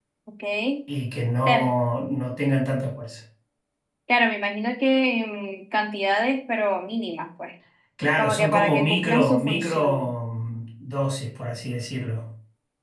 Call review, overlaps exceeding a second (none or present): present